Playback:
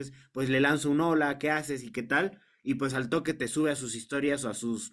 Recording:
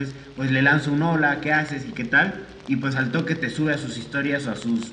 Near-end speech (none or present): none